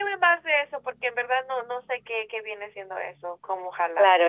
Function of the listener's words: taking over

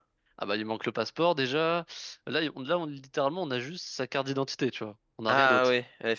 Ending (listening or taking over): taking over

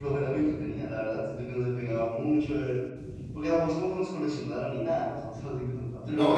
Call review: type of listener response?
taking over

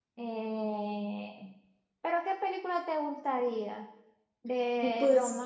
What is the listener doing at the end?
listening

